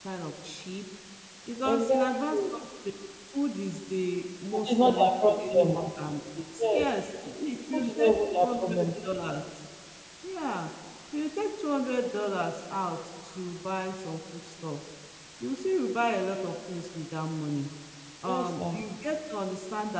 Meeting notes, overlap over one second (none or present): present